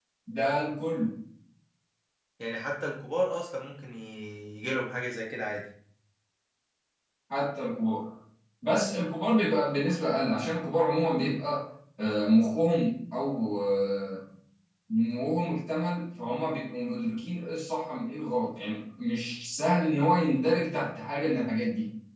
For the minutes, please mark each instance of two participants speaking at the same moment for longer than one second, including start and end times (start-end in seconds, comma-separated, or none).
none